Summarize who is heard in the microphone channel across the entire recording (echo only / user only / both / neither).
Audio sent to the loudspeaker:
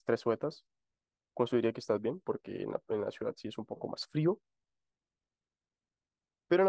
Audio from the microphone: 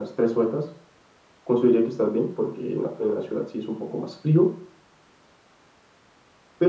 echo only